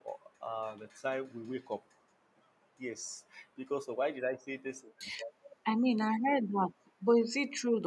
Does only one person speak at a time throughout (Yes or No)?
Yes